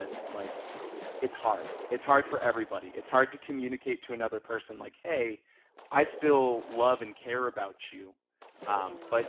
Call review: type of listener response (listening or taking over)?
listening